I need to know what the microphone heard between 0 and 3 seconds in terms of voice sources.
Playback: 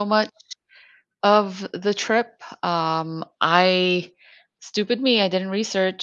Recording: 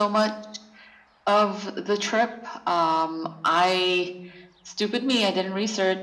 echo only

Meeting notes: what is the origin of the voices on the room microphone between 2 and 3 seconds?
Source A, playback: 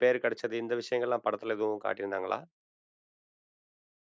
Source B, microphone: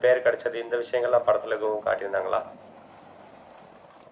echo only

